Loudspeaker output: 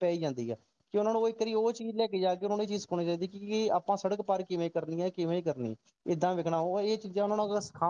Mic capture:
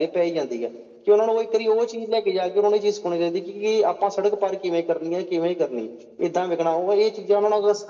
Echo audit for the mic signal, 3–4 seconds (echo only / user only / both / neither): echo only